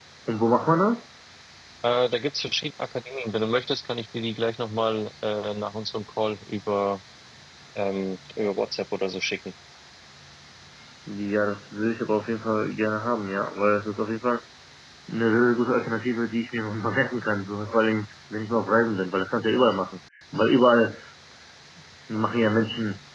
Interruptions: none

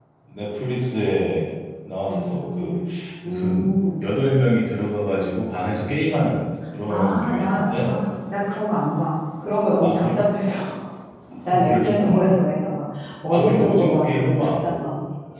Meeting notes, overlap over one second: present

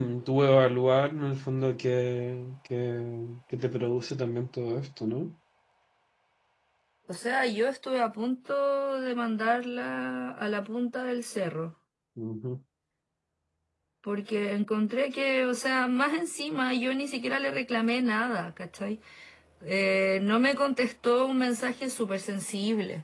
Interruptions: none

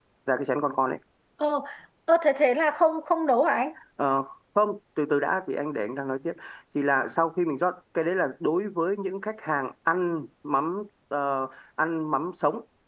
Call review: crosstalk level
none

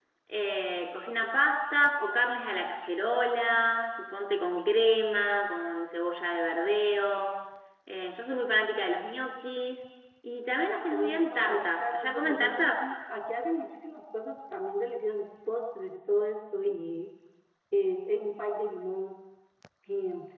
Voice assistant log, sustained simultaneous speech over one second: present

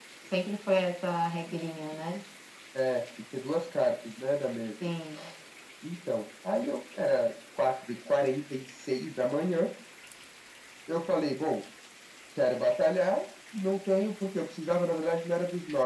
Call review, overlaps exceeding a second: none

